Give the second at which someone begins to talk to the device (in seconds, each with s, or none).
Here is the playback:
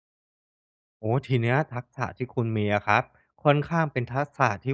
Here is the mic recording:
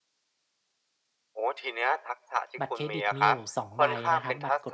2.6 s